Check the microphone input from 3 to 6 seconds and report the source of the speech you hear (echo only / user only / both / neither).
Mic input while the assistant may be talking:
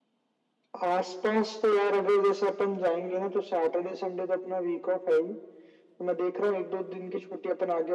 echo only